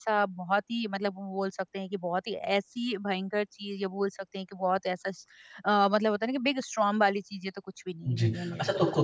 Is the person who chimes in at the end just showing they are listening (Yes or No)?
No